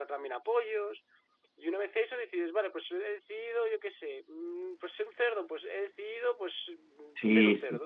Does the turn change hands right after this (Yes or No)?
Yes